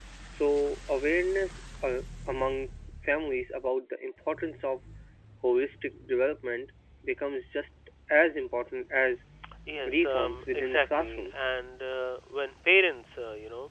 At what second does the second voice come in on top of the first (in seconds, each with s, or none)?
9.8 s